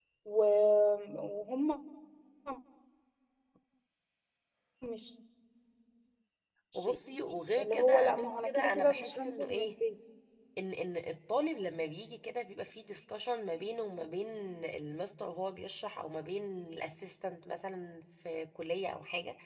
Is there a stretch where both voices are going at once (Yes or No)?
Yes